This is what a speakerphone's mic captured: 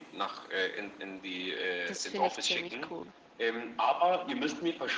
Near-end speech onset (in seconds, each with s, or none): 1.8 s